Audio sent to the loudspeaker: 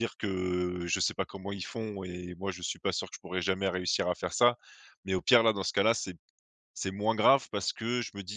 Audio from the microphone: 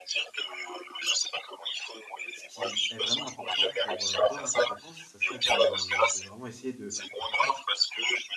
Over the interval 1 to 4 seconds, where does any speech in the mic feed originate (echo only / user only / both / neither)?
both